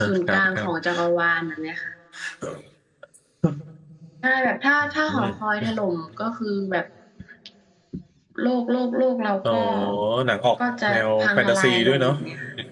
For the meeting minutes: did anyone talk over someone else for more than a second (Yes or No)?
Yes